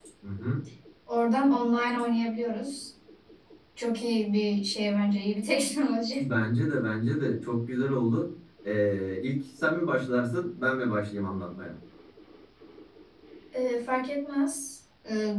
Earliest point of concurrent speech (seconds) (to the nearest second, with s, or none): none